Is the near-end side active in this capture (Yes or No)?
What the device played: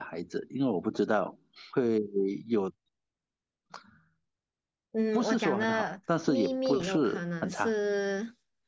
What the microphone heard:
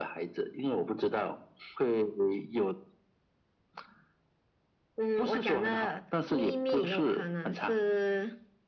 No